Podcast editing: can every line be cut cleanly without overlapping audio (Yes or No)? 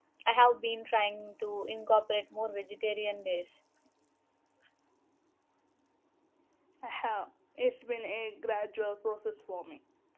Yes